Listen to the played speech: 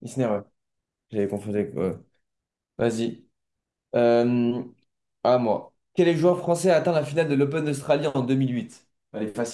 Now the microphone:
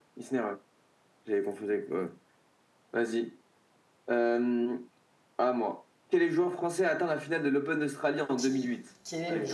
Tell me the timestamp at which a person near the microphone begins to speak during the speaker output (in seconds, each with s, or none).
8.3 s